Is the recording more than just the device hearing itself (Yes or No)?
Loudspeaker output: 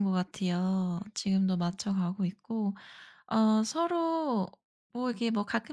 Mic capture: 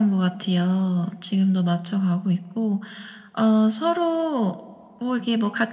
No